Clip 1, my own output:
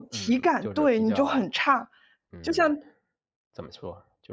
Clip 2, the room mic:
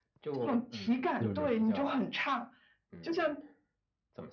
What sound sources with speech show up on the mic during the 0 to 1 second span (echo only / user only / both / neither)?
echo only